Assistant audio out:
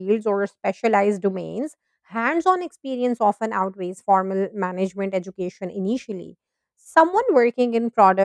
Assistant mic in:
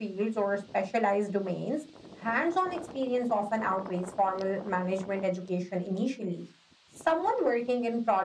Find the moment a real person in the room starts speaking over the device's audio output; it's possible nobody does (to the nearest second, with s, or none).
none